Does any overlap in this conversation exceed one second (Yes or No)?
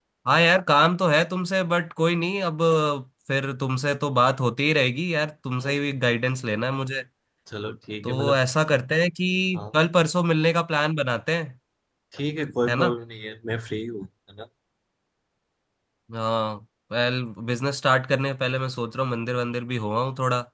No